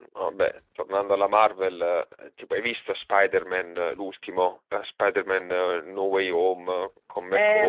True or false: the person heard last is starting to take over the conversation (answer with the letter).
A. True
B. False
A